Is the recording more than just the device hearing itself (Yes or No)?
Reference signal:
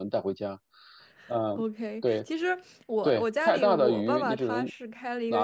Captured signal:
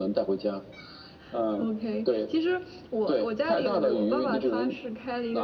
No